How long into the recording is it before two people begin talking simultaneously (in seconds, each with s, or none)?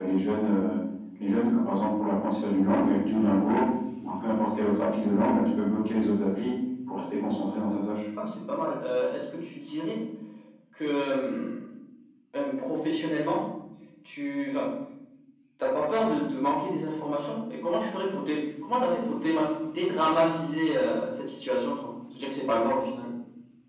none